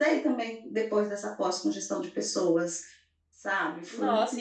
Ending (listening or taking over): taking over